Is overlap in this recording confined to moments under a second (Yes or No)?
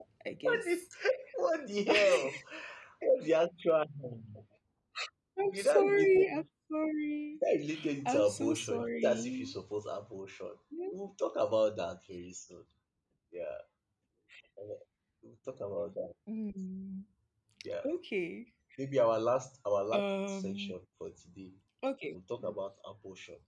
No